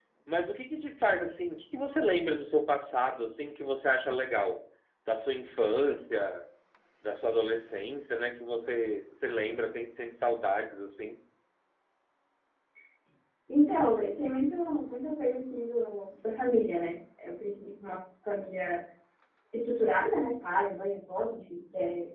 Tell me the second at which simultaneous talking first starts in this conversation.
none

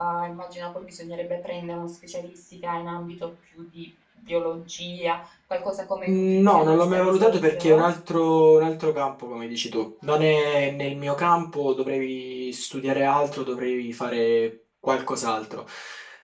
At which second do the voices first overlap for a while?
6.1 s

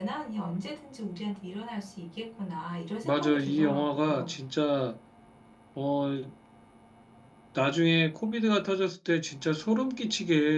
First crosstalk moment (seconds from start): 3.0 s

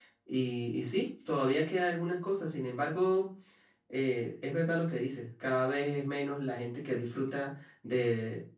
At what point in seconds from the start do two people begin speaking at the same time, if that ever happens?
none

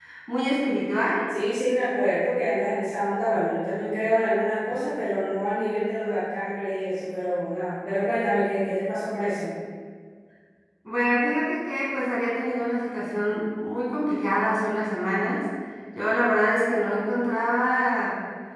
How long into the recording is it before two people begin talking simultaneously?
none

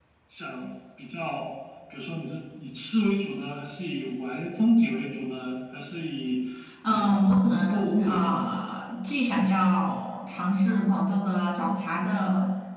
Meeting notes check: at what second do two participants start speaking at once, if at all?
6.9 s

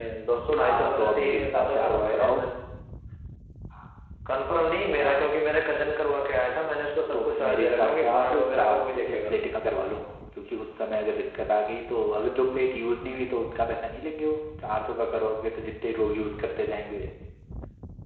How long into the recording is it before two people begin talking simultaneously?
0.6 s

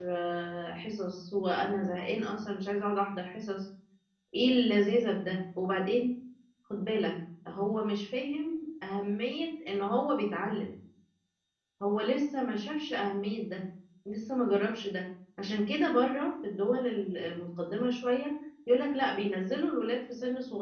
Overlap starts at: none

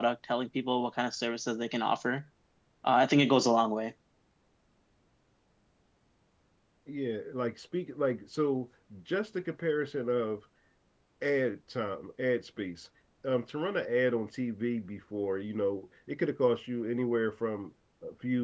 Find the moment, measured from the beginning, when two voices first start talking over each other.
none

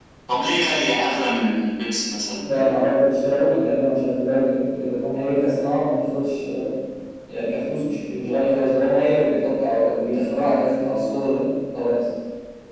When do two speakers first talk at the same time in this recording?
none

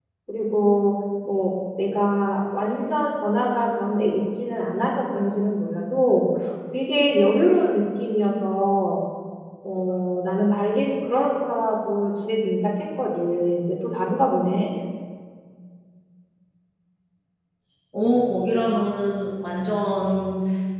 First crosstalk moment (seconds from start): none

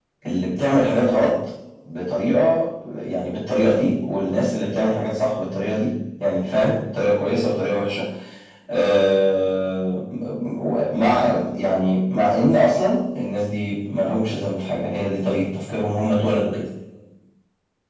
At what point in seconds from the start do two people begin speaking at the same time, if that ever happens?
none

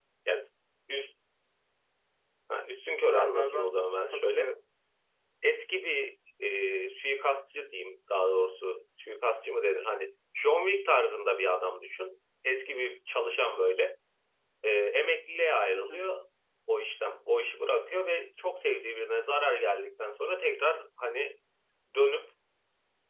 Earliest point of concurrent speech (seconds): 3.0 s

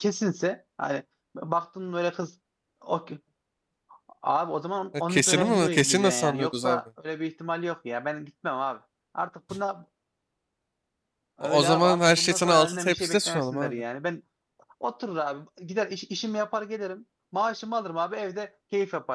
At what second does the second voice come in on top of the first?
5.1 s

